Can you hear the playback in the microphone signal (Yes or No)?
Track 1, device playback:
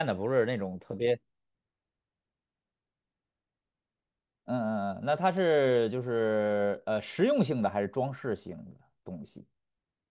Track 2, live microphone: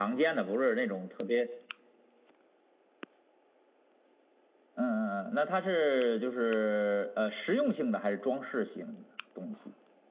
Yes